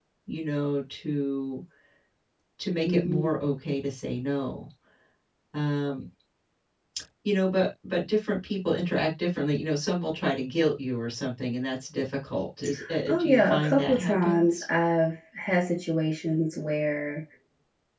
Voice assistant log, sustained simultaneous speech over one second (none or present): present